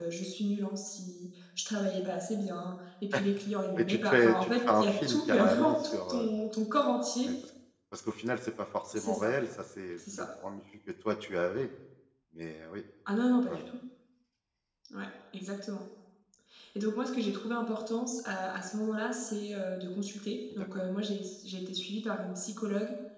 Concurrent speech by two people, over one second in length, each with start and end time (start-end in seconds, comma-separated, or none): 3.8-6.3